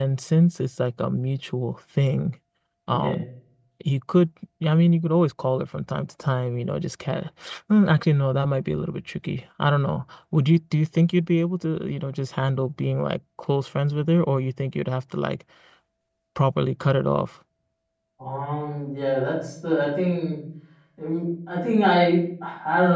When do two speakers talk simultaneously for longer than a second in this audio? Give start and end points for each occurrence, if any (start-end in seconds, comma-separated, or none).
none